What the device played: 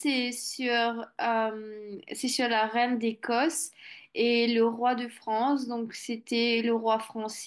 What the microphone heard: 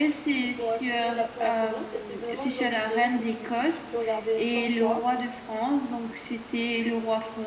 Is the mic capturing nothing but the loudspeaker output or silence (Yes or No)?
No